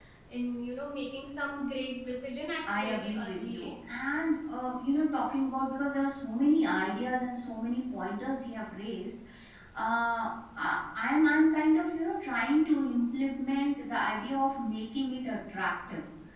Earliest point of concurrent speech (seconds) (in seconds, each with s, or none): 2.6 s